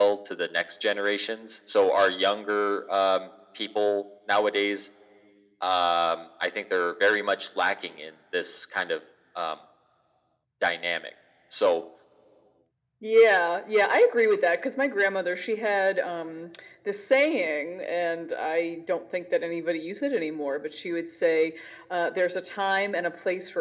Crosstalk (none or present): none